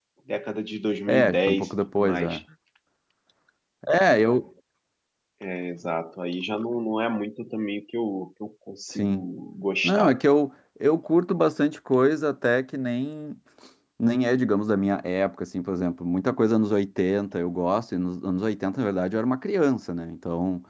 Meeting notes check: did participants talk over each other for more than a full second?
Yes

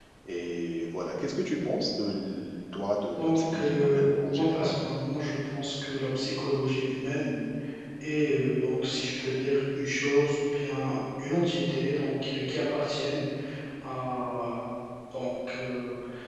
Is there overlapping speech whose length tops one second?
Yes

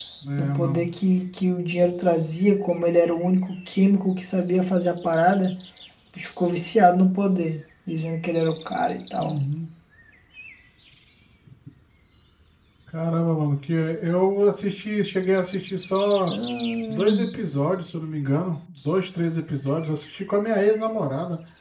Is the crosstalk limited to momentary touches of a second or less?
Yes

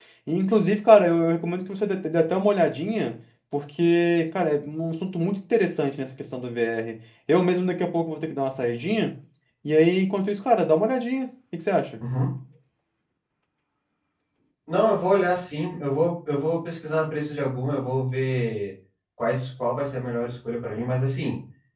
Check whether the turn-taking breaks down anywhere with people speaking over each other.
No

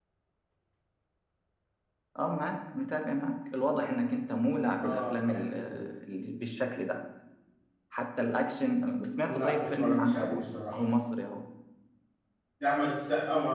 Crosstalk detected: Yes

